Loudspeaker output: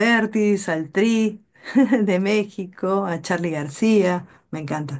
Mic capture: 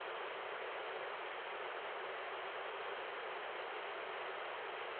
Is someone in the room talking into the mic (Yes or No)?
No